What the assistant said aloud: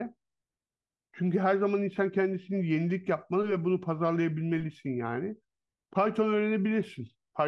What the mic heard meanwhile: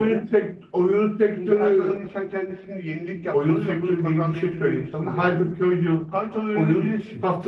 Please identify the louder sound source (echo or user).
user